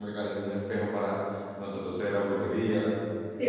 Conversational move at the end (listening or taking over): taking over